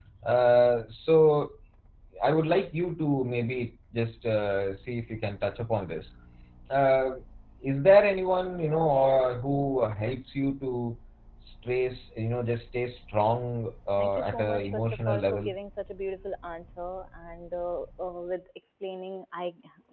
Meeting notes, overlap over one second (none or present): present